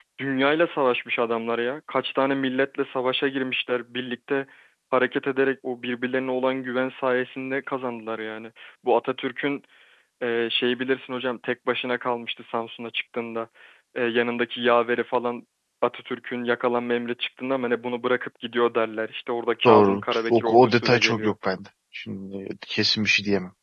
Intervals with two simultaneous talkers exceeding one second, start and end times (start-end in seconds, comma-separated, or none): 19.6-21.3